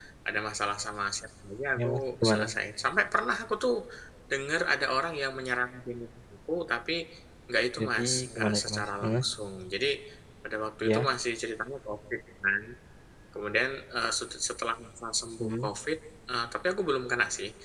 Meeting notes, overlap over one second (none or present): present